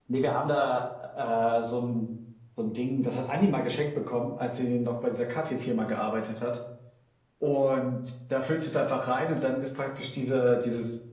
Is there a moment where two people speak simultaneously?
No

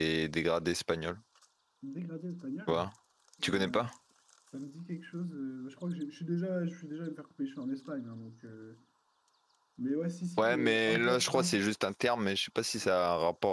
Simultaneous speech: Yes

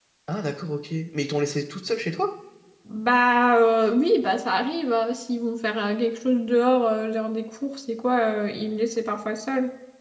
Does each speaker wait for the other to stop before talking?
Yes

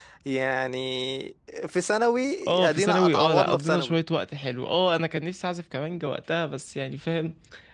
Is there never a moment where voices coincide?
No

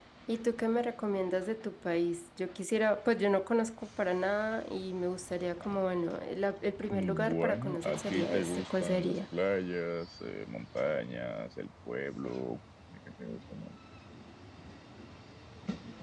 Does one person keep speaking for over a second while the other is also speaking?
Yes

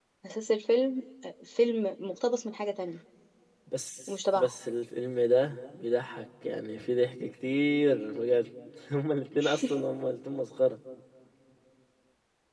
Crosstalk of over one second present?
No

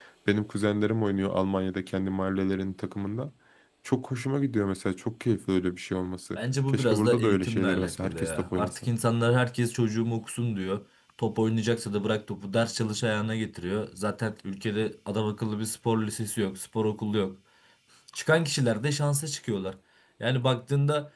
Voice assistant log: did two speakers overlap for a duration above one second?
Yes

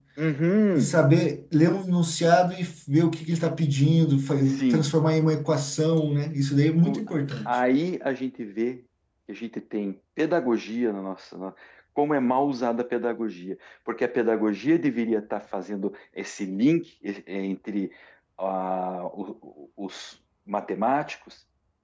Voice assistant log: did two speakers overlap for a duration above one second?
No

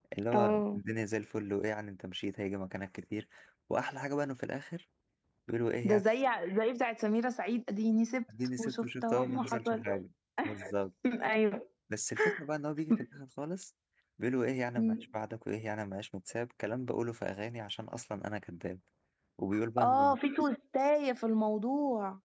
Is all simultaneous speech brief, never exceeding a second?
No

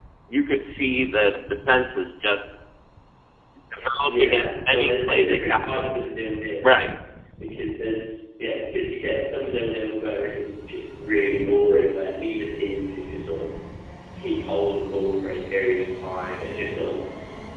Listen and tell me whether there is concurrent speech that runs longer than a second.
Yes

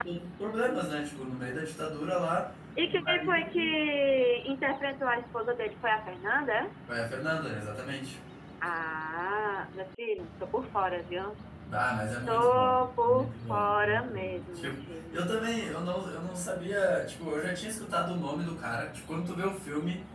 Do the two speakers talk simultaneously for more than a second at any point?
Yes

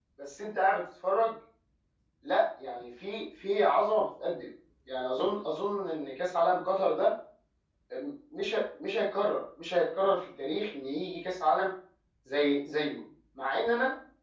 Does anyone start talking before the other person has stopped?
No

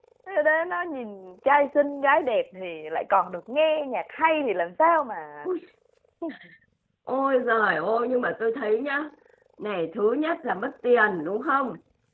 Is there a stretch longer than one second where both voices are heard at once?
No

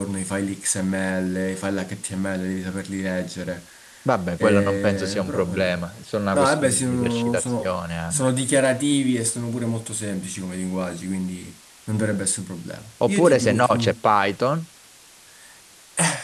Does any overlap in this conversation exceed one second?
Yes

